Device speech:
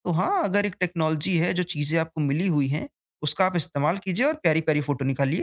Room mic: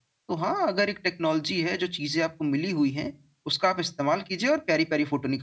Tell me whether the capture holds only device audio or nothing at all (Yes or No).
Yes